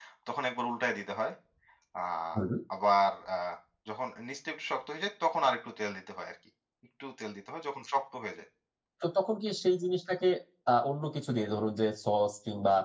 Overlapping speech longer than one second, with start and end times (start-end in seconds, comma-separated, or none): none